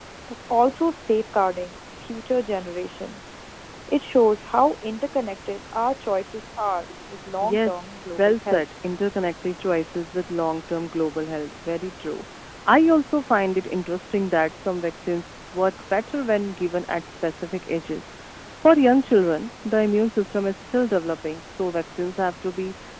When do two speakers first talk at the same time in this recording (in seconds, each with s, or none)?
7.4 s